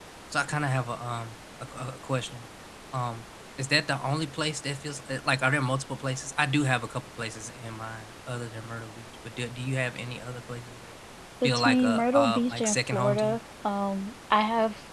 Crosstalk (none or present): present